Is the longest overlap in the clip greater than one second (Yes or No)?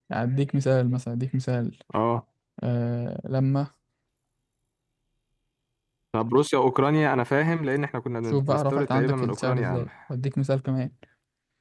Yes